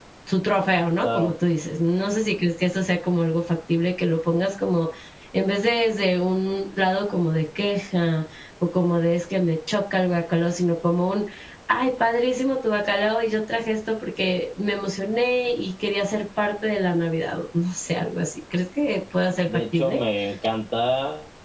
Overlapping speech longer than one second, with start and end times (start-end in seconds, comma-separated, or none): none